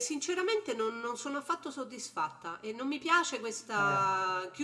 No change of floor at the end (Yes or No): Yes